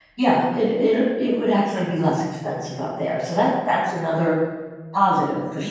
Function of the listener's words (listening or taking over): taking over